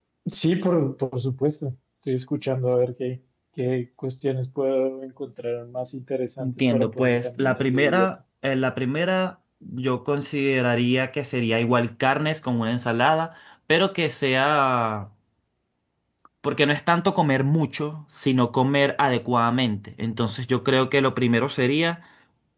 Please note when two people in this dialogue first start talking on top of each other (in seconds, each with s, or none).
6.4 s